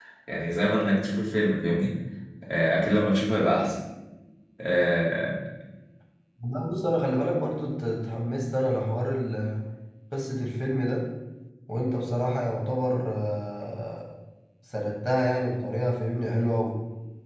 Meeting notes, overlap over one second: none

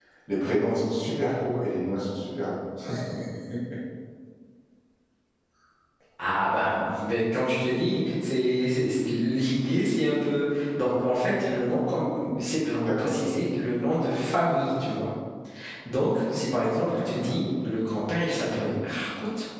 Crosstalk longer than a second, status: none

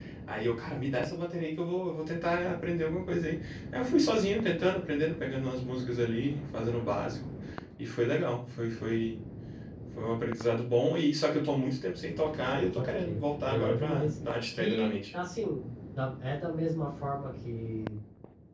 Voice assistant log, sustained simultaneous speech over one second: present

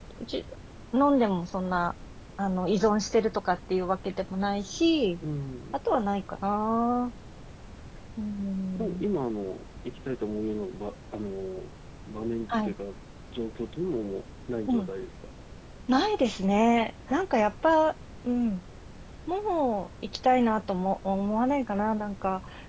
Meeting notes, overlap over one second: none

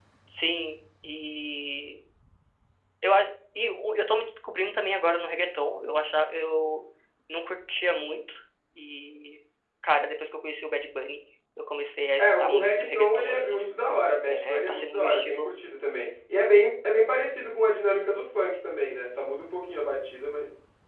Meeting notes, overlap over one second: present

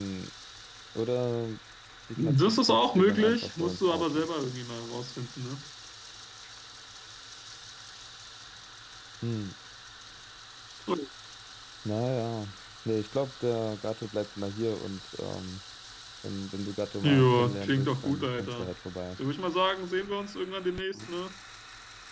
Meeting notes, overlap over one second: present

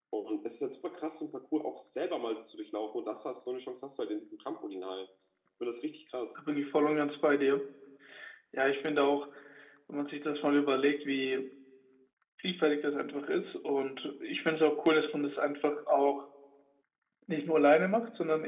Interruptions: none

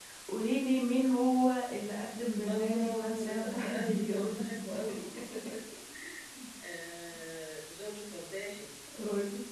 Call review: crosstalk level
present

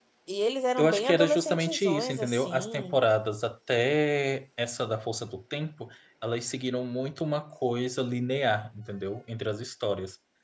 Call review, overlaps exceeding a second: present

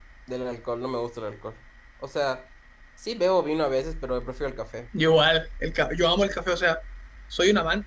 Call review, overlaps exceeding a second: none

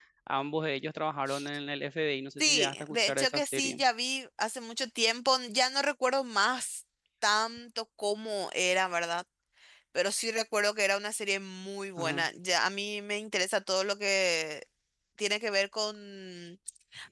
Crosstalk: present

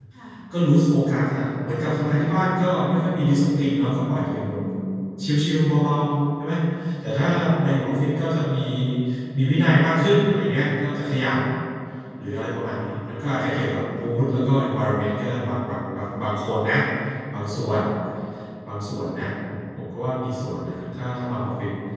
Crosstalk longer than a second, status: none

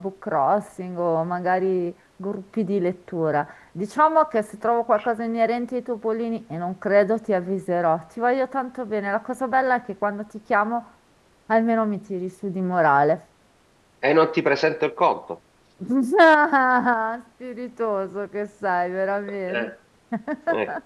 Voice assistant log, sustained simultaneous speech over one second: none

